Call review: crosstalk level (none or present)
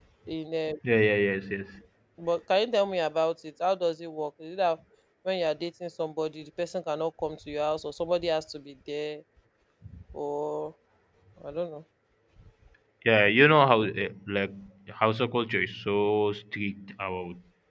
none